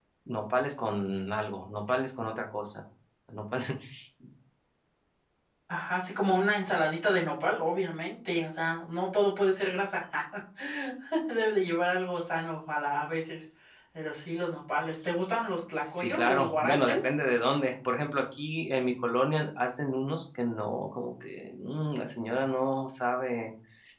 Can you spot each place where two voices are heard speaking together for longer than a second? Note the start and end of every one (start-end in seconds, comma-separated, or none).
15.5-17.1